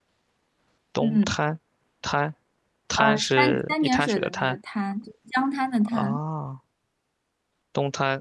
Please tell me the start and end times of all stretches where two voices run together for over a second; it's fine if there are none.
3.0-4.6

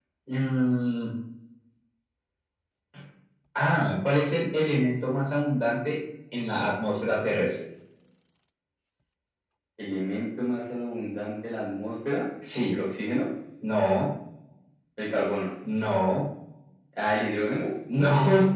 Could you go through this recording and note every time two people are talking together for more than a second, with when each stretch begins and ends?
none

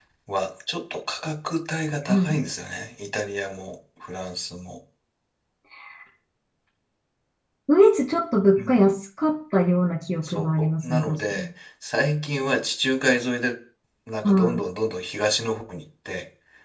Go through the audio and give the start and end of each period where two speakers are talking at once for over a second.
10.2-11.4

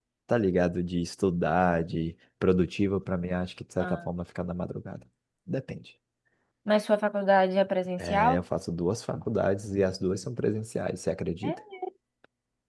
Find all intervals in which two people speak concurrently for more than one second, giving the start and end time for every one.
none

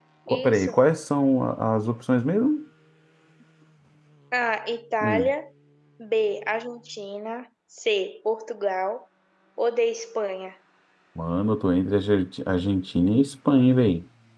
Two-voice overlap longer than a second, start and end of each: none

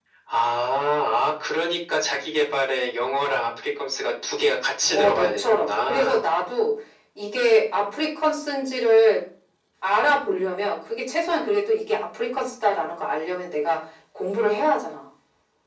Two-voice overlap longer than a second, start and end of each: 4.9-6.2

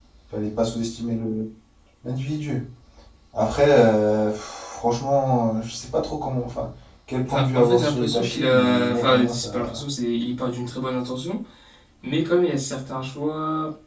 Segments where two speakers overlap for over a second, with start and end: 7.2-9.8

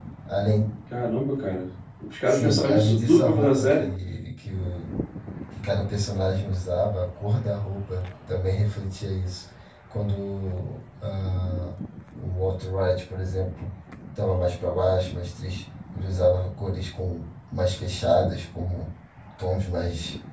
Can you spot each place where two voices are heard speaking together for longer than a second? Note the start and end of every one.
2.3-3.9

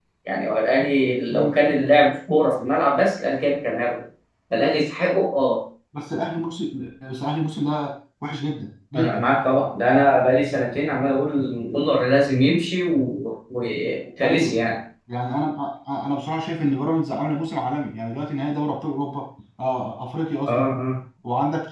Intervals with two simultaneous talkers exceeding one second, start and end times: none

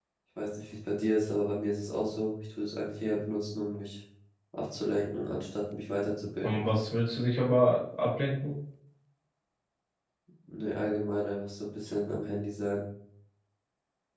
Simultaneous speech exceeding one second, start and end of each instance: none

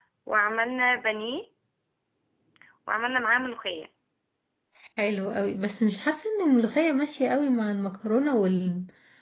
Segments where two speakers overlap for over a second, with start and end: none

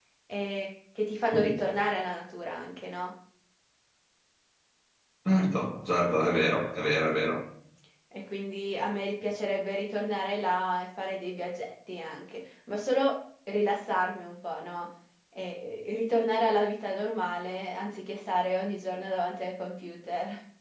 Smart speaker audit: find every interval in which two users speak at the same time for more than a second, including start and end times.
none

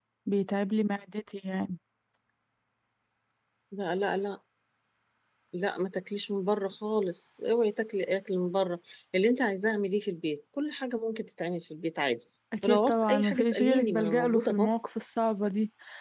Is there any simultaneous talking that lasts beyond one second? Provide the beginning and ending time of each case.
12.6-14.7

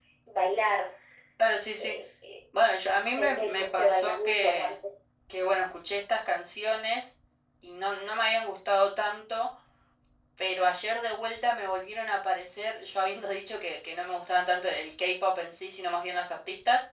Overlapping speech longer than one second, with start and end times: 3.2-4.7

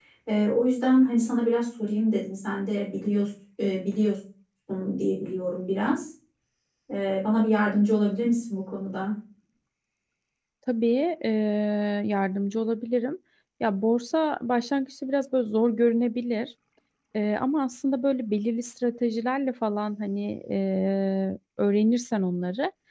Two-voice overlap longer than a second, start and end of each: none

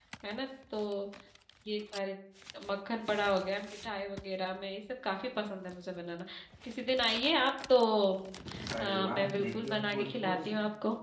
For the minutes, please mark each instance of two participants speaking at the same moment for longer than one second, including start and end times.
9.1-10.5

